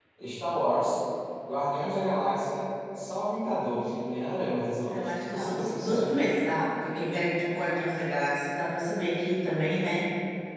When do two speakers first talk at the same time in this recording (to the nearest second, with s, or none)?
5 s